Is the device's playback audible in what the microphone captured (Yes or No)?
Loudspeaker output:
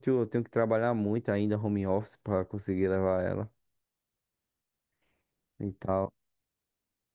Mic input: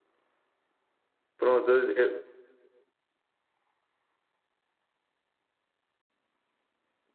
No